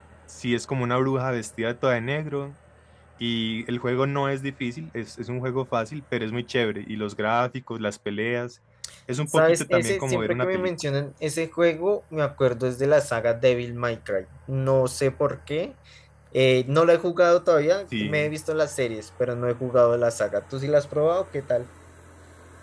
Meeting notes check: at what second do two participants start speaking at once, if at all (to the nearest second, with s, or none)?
9 s